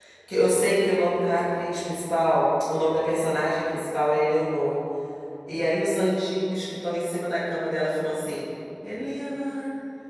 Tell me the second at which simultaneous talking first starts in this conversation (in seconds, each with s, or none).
none